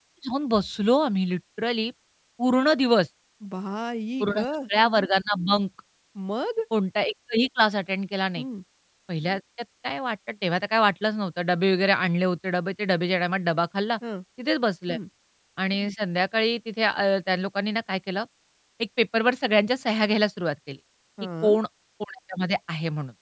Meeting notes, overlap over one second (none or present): none